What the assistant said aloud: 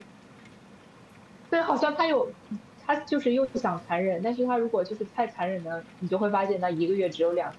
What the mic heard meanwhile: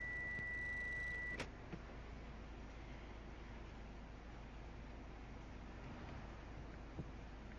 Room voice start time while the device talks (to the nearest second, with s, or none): none